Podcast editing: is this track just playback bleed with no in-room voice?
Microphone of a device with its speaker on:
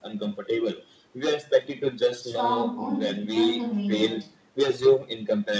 No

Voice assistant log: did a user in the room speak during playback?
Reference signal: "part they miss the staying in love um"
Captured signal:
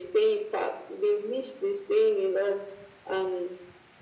No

